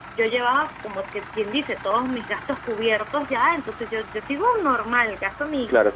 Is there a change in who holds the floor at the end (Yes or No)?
No